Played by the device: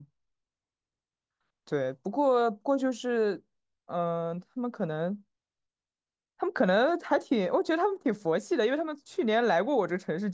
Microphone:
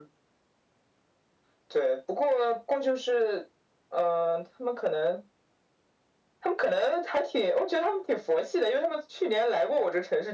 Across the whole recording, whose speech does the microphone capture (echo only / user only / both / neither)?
echo only